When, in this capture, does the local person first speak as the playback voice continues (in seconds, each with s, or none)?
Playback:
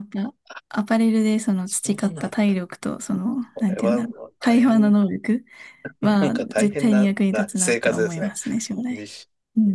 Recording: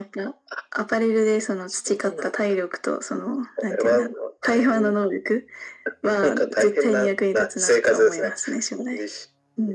none